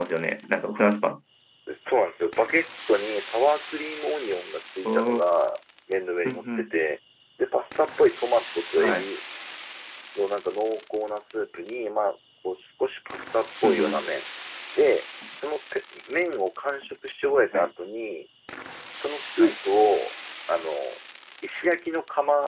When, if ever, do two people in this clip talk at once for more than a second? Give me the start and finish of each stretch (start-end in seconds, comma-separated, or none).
none